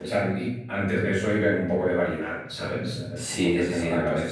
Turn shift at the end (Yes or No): Yes